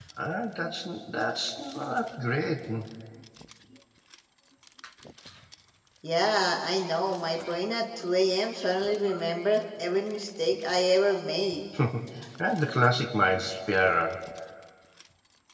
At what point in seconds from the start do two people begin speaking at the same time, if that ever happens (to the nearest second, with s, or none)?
none